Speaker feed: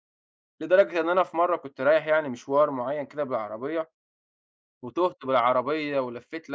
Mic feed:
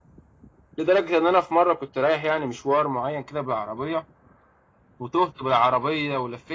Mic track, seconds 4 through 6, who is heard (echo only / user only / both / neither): echo only